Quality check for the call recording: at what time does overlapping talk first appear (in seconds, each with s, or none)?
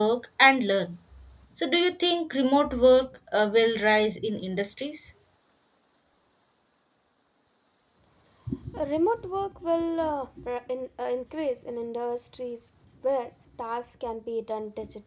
none